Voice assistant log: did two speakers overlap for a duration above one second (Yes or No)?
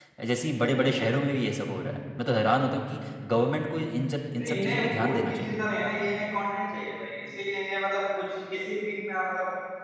Yes